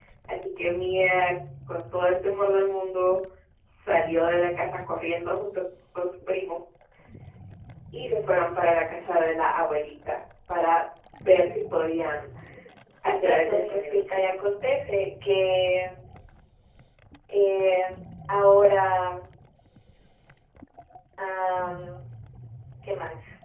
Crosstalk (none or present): present